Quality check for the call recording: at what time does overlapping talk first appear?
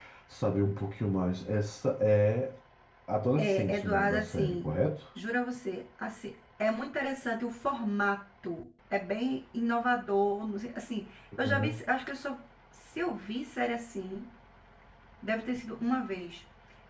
3.4 s

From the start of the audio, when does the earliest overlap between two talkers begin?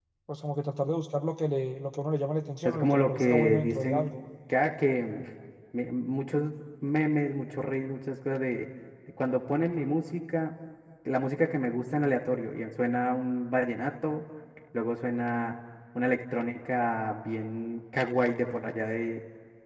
2.6 s

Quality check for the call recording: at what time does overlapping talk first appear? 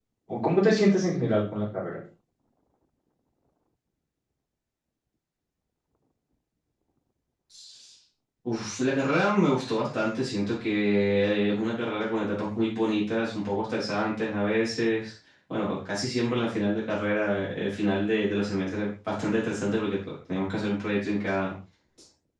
none

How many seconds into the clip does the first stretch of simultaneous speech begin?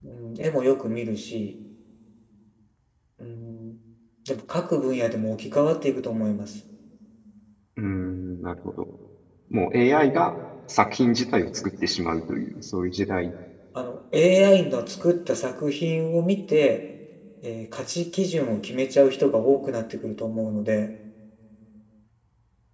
none

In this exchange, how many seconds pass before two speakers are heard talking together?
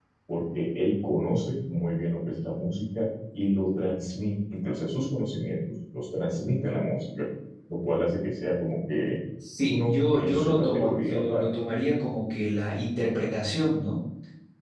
9.7 s

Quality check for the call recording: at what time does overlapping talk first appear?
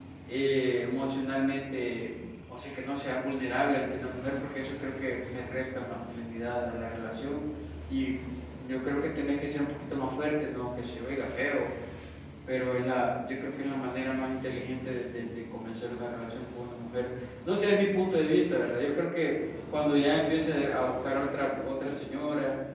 none

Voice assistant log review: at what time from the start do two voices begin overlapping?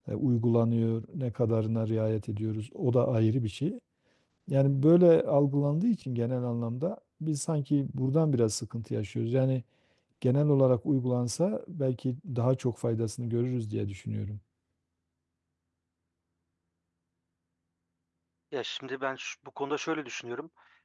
none

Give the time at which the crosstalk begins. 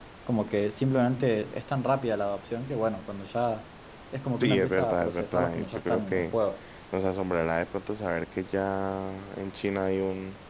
4.4 s

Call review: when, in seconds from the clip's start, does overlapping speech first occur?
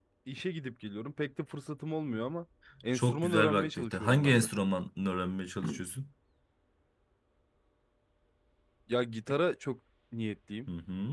2.9 s

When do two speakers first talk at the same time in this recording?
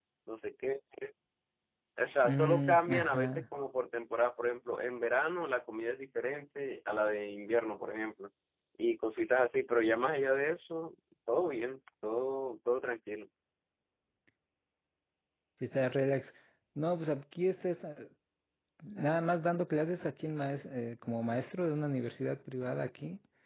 2.2 s

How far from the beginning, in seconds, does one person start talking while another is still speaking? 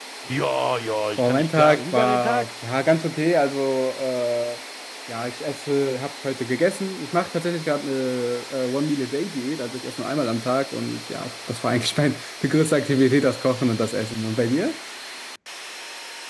1.2 s

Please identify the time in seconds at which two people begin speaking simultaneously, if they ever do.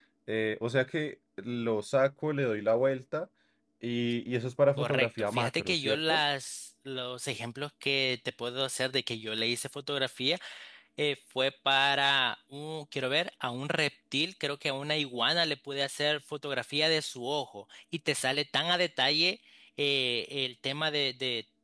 4.8 s

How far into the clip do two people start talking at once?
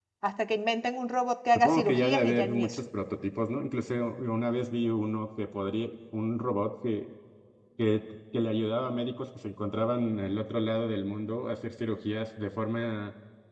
1.6 s

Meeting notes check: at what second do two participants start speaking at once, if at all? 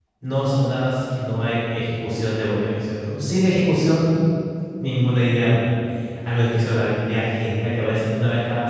none

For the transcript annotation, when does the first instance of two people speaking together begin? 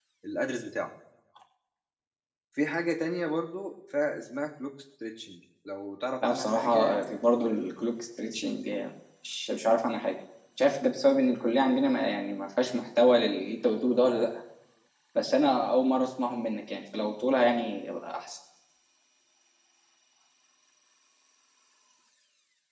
6.2 s

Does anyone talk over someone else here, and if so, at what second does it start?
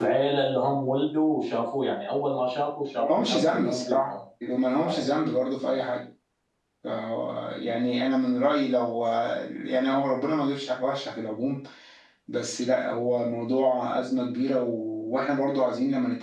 3.0 s

